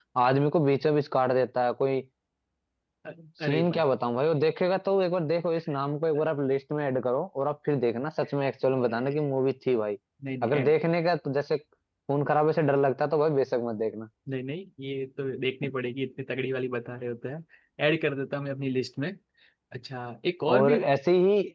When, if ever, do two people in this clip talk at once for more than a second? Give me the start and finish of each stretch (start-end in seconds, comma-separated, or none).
none